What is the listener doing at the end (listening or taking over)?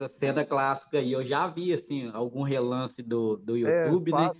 taking over